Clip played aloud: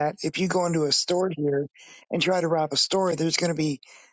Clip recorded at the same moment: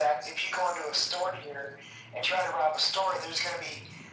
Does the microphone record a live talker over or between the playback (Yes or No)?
No